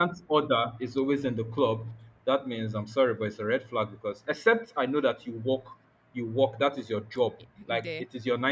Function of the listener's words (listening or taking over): listening